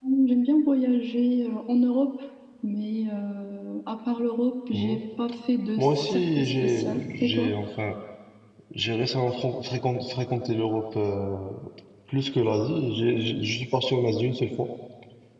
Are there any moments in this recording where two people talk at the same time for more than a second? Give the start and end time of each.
5.8-7.5

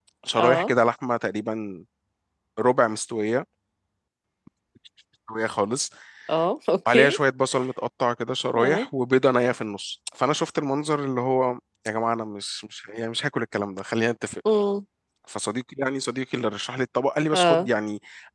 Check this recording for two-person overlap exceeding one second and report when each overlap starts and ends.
none

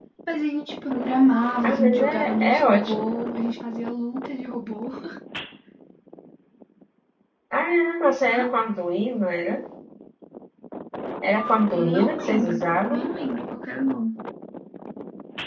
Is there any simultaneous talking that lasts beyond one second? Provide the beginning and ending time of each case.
1.6-3.0, 11.7-13.1

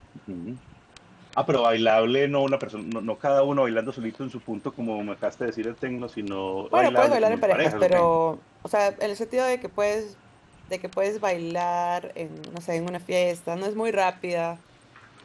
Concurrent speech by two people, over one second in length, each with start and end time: 6.7-7.9

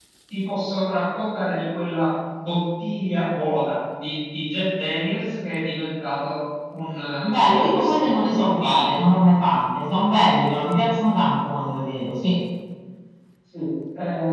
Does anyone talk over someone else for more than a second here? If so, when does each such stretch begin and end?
7.2-8.9

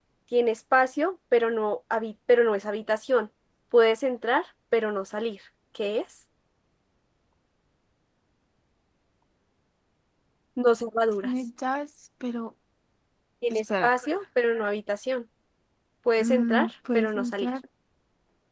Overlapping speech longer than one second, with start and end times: 16.2-17.5

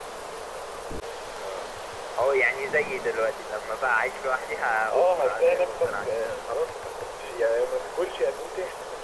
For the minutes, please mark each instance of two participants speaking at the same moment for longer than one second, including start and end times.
4.9-6.1

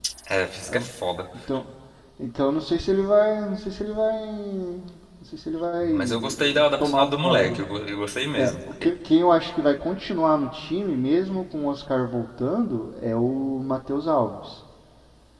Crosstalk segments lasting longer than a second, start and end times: 5.8-7.6

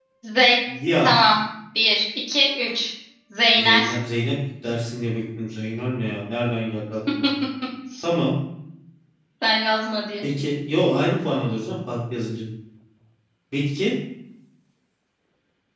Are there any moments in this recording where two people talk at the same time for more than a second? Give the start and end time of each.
none

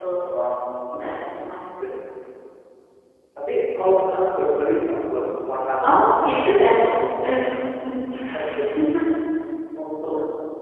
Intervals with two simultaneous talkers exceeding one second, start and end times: none

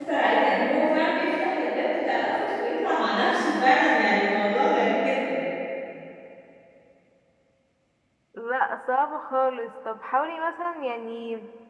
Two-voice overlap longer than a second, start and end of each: none

